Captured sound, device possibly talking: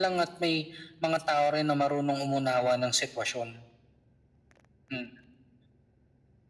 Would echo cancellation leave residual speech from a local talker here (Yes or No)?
No